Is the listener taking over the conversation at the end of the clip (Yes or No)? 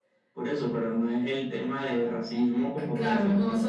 Yes